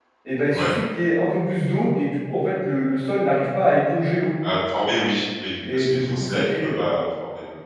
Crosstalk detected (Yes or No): Yes